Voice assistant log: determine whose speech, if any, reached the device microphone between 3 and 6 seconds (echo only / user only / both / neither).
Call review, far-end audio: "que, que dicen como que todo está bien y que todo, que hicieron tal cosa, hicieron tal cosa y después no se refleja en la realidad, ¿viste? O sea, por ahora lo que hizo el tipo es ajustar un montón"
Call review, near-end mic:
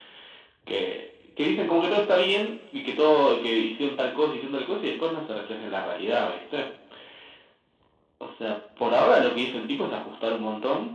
echo only